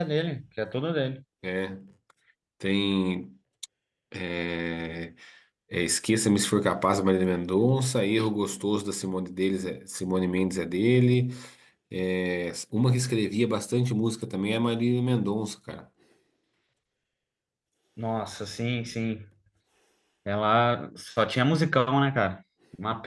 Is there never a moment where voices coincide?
Yes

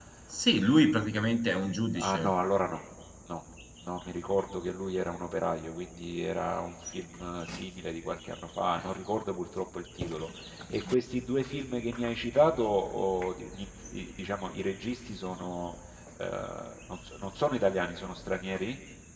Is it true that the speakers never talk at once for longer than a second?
Yes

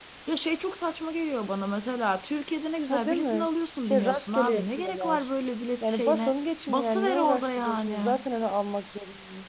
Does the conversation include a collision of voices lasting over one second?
Yes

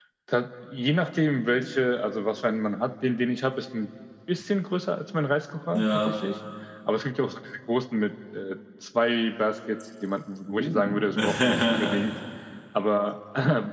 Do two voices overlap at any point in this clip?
Yes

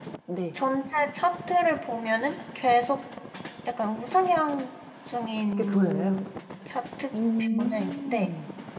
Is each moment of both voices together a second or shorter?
No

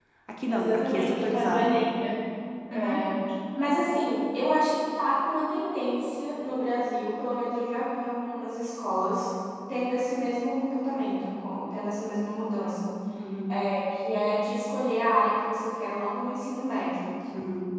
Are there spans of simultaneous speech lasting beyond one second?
Yes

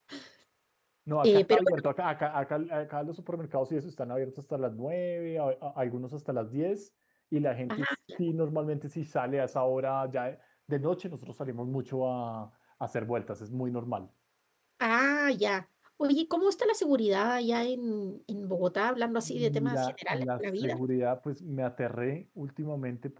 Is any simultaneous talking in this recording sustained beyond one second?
Yes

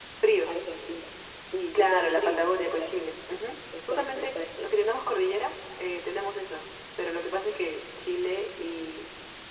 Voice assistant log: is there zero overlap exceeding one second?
No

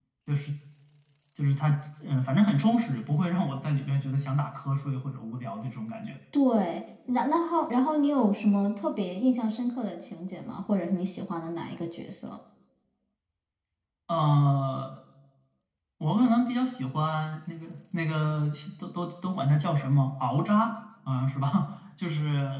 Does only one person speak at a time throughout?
Yes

